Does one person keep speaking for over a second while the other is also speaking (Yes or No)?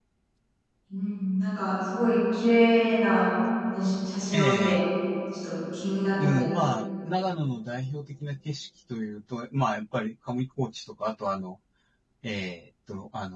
No